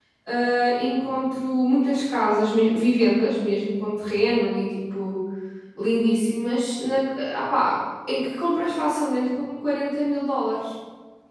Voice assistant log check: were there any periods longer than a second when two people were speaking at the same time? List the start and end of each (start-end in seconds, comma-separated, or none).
none